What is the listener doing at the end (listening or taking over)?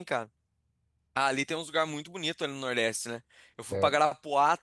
listening